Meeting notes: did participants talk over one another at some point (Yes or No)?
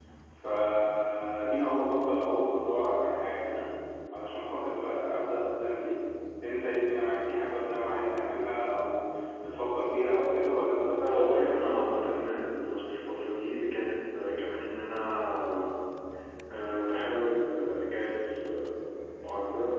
Yes